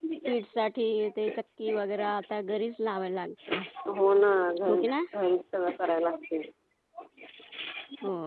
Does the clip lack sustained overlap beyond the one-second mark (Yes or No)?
Yes